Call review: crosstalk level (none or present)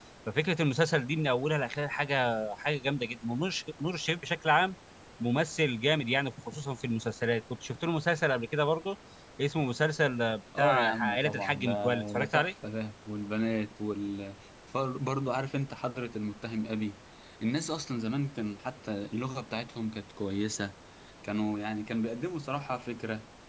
present